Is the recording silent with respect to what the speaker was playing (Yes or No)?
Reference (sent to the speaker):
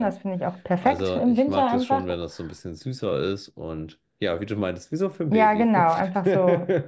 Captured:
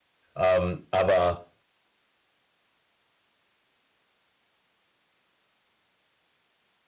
Yes